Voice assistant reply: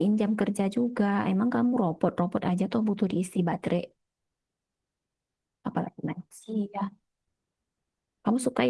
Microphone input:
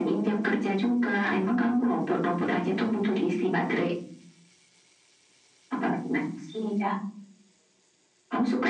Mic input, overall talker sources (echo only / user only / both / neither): echo only